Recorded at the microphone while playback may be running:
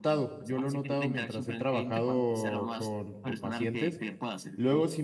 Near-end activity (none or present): present